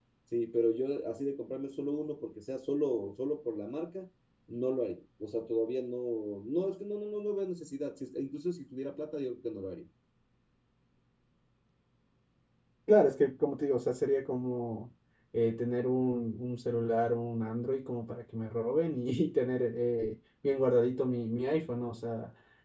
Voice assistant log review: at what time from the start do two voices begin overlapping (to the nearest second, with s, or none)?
none